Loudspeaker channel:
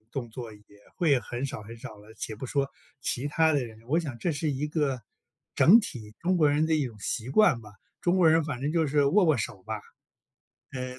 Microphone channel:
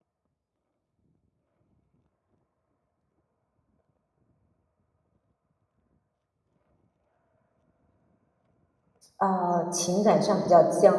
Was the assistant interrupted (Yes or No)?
Yes